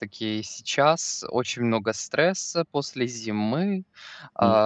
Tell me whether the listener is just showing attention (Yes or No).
Yes